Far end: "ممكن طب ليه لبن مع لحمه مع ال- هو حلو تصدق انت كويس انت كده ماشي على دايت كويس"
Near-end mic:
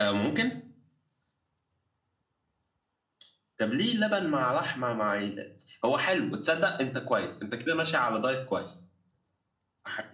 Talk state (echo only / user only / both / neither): echo only